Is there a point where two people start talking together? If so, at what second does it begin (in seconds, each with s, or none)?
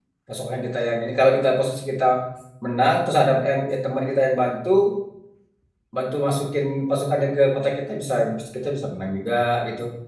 none